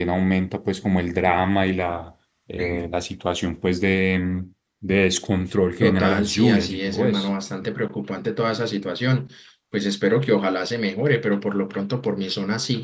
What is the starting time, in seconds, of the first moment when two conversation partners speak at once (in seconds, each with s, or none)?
5.8 s